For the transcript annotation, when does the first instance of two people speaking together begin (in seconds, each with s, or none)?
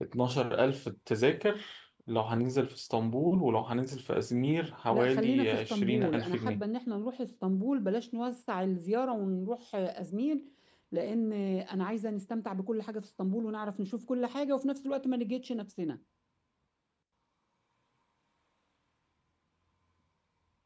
4.9 s